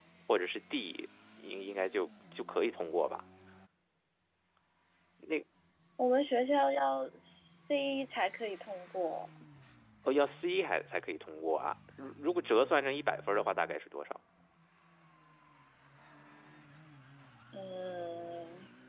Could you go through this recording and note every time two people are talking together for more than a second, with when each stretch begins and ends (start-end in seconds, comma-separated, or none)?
none